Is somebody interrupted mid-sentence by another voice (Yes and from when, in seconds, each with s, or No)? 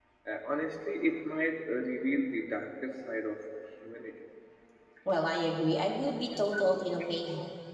No